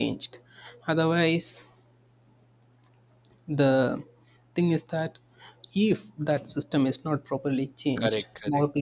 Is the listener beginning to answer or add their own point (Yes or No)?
Yes